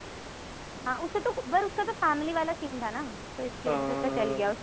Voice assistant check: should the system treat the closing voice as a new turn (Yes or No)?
No